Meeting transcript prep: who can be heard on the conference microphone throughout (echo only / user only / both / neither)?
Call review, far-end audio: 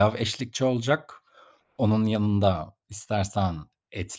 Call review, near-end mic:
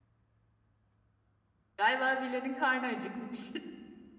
user only